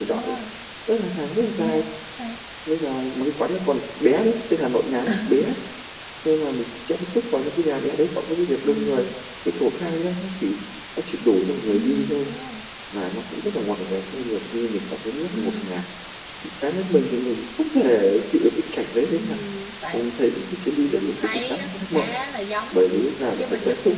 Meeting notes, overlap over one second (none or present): present